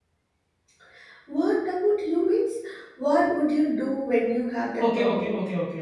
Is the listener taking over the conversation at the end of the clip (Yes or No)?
Yes